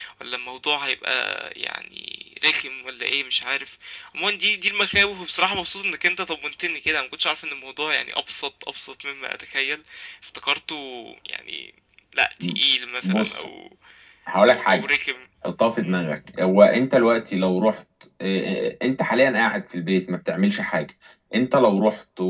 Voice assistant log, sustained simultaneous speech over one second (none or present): none